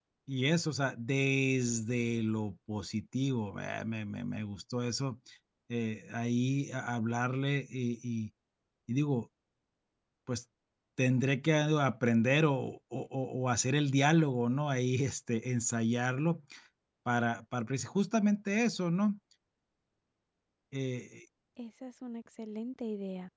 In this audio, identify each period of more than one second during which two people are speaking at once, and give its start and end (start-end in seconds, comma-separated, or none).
none